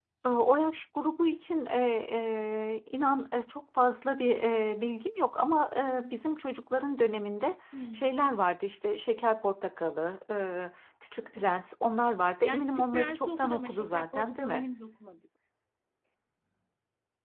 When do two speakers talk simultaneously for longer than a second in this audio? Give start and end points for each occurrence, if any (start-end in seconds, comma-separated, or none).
12.4-14.7